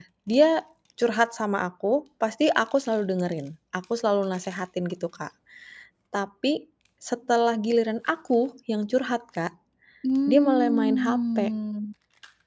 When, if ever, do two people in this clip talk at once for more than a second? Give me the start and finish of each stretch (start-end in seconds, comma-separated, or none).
10.3-11.5